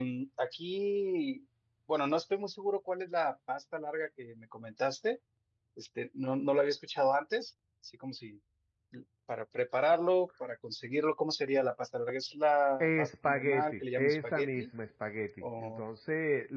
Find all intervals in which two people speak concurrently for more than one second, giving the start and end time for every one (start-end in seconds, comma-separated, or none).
12.8-14.7